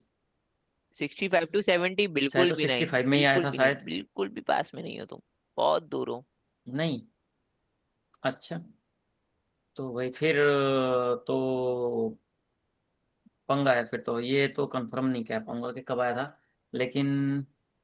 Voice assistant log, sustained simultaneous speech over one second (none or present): present